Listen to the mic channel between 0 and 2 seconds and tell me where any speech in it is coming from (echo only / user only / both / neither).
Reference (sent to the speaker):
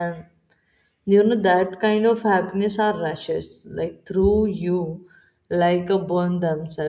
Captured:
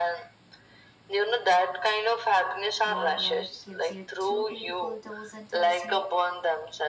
echo only